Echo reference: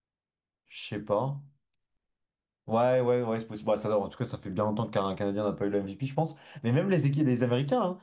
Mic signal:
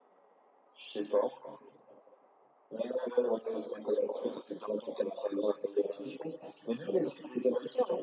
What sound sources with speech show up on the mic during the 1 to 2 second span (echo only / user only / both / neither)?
echo only